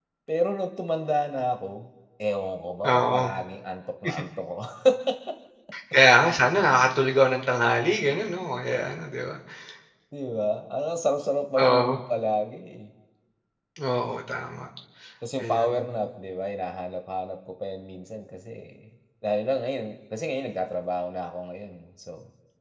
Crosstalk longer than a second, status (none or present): none